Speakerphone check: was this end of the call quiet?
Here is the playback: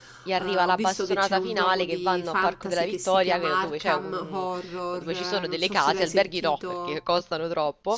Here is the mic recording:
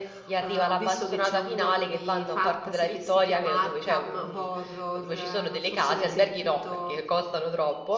Yes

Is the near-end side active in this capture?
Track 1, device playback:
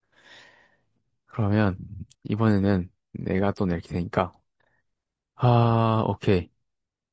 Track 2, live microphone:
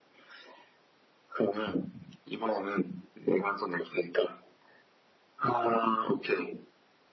No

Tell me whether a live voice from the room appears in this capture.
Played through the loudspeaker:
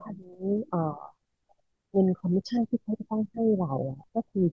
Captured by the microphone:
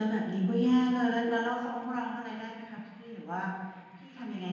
Yes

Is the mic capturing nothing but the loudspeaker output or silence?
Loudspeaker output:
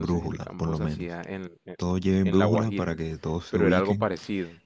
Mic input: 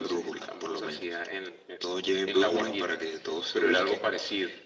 Yes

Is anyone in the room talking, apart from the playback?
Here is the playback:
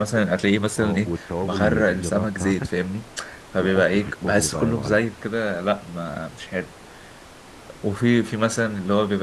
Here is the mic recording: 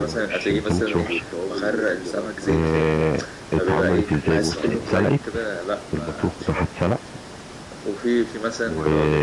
Yes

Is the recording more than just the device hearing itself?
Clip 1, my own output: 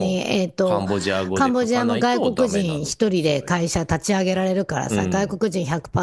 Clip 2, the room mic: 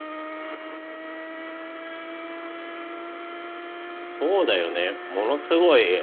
Yes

